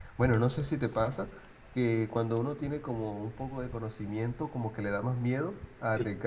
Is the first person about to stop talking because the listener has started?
No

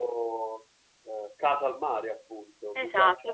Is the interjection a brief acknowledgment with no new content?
No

